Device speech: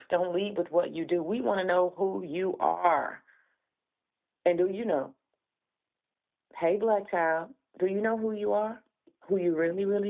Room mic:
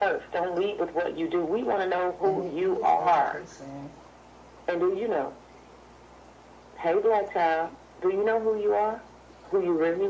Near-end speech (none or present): present